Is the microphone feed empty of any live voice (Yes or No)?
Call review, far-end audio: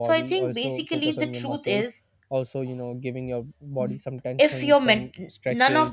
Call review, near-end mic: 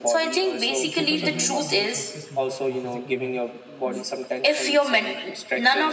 No